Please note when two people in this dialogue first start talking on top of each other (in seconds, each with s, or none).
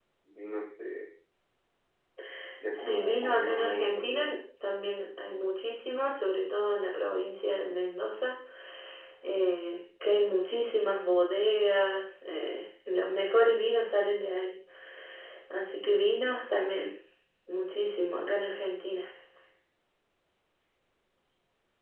2.8 s